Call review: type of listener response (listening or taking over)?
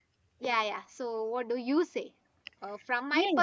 listening